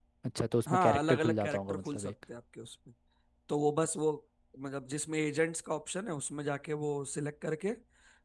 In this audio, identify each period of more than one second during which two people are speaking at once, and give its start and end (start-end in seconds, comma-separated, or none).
0.7-2.1